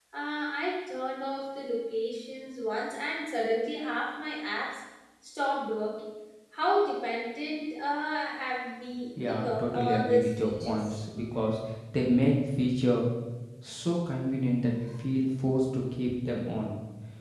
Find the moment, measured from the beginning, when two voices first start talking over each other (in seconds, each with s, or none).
9.2 s